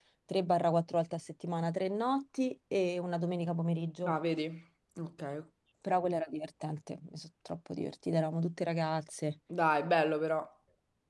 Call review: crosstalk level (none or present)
none